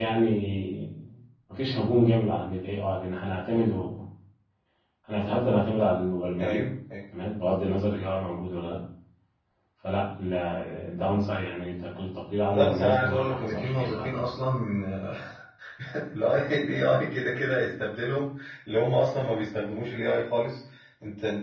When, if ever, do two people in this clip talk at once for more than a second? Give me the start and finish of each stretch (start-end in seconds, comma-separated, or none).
12.5-14.3